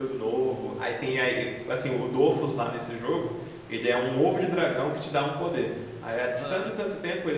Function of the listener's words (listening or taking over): listening